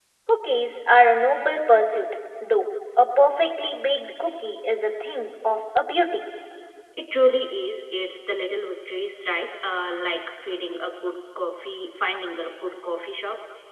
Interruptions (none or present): none